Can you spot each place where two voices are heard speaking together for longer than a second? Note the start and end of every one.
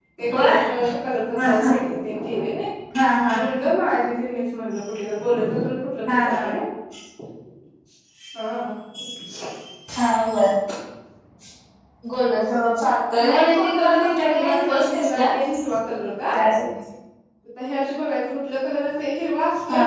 13.2-15.3

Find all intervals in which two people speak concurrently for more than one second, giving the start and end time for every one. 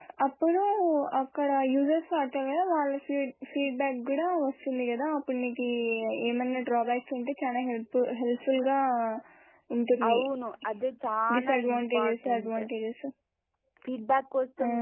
11.4-12.6

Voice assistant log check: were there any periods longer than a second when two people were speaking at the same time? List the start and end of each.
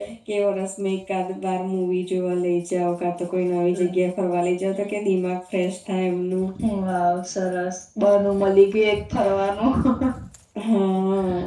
none

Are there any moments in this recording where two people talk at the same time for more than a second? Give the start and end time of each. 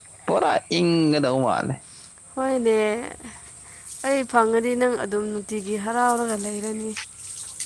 none

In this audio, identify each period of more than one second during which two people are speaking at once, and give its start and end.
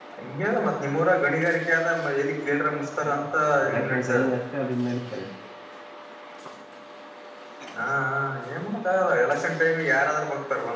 3.0-4.2

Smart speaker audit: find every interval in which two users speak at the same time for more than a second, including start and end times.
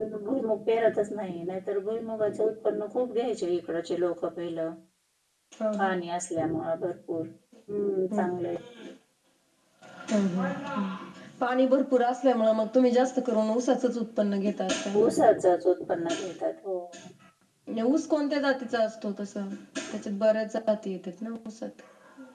none

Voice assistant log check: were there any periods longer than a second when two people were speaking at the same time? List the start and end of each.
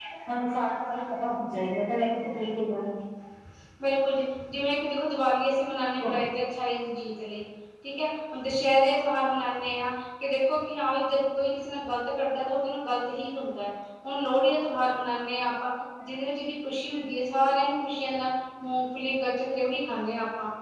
none

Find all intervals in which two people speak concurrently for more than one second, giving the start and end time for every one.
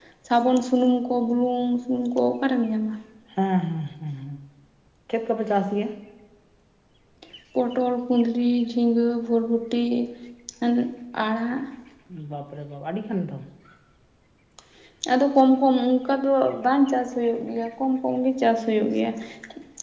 none

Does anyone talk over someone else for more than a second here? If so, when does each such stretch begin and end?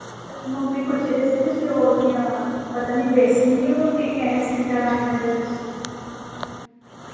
none

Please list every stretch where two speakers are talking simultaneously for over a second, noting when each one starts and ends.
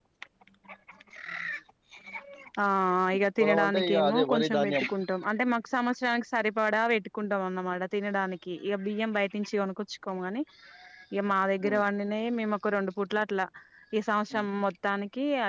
3.4-4.8

